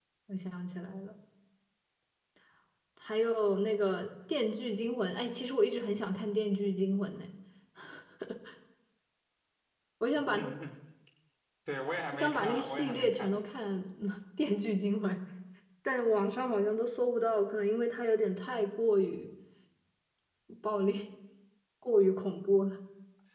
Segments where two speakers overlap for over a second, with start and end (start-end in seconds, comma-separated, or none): 12.1-13.4